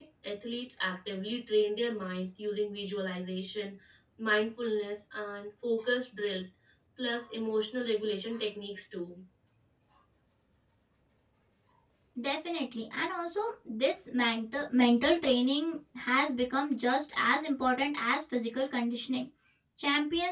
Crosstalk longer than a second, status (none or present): none